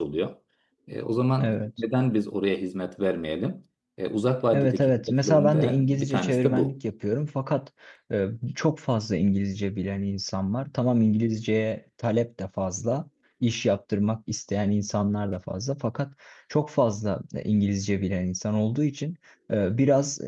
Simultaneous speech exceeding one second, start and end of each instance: 4.5-6.7

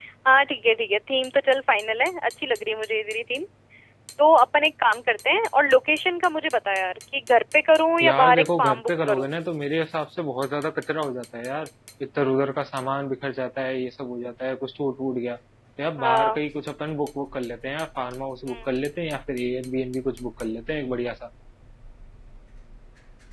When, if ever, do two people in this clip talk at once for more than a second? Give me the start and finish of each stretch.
8.0-9.3

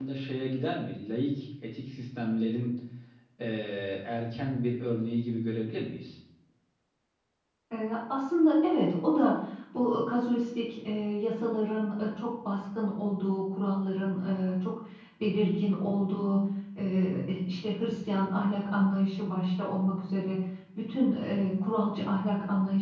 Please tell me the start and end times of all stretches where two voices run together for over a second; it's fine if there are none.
none

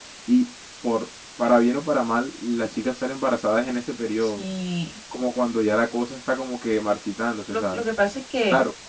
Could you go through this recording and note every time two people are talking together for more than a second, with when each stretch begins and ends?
none

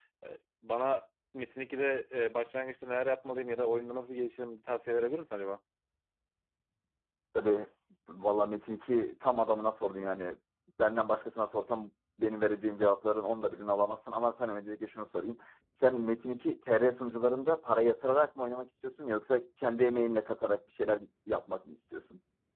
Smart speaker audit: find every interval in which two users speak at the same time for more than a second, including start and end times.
none

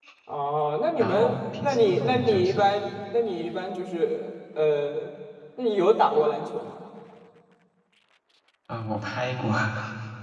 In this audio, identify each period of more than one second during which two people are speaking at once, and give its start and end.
1.0-2.7

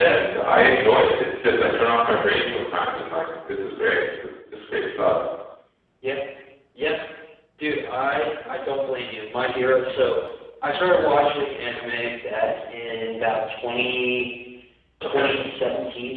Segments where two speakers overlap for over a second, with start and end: none

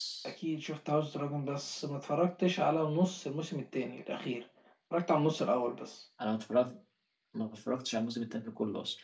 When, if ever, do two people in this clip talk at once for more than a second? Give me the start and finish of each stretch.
none

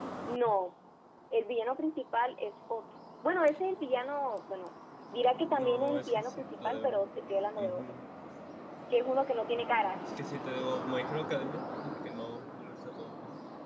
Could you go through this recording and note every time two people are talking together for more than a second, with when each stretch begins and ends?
5.4-7.0

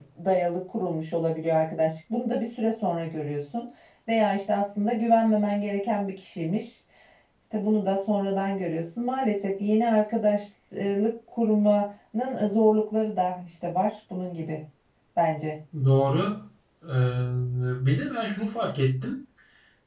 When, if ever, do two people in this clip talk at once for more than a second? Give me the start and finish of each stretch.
none

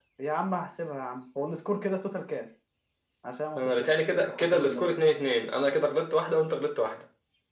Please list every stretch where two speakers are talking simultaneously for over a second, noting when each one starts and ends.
3.6-4.9

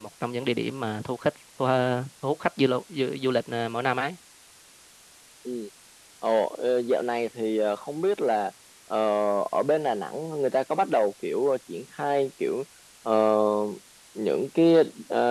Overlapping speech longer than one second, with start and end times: none

